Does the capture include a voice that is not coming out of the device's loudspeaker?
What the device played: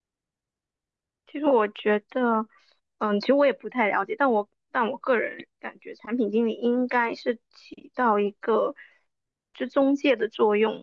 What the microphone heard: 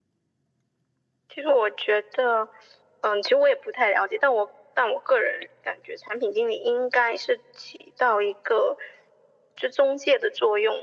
No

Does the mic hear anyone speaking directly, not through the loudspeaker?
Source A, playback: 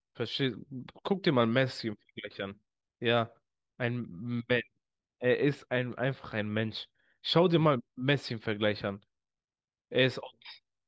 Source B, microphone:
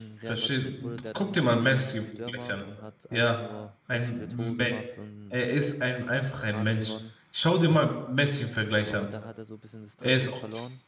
Yes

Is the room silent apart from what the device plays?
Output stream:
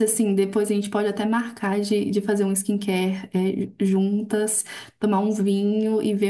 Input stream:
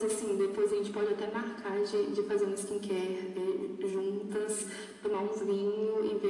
Yes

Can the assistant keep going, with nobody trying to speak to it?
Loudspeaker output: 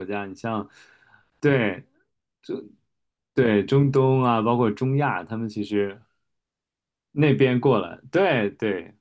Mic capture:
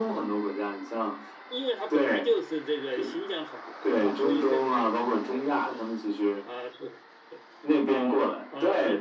No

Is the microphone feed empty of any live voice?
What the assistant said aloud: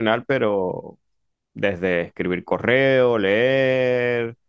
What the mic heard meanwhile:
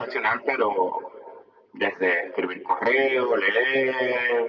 Yes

